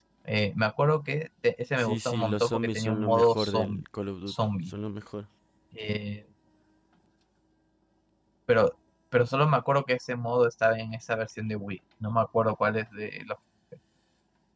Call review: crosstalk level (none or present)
present